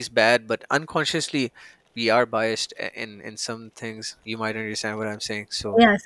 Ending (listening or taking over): taking over